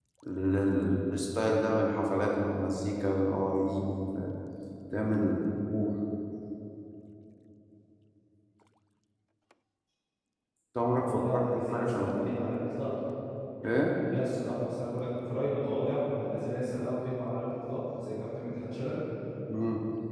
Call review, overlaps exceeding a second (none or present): present